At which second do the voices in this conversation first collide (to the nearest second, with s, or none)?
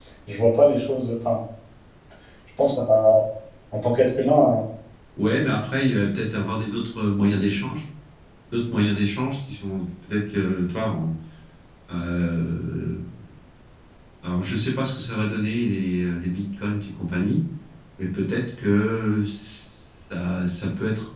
none